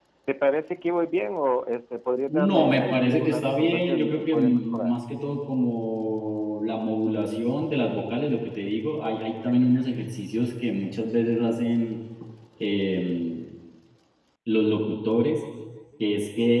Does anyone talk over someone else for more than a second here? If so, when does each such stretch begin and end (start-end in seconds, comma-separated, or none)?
2.3-5.0